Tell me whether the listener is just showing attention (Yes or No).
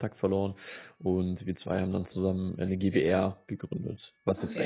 No